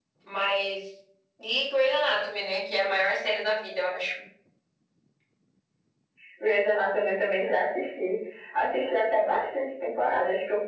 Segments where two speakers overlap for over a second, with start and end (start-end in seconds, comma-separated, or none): none